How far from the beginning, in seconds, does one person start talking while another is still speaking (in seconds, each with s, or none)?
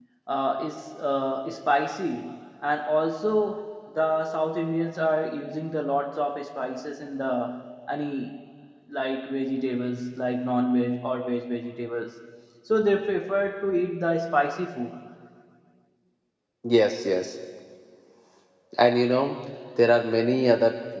none